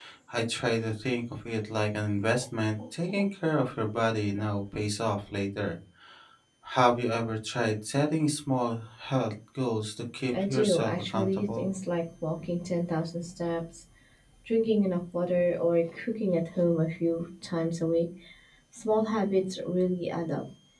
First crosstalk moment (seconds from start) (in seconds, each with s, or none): 10.3 s